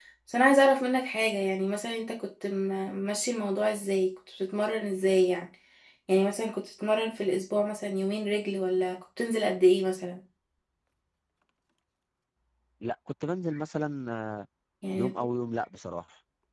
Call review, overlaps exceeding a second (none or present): none